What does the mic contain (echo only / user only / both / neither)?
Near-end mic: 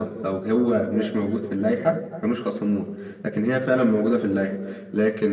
echo only